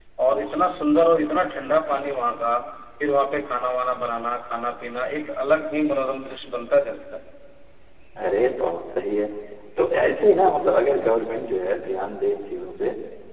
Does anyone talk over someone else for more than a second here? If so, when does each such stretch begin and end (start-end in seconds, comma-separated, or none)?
none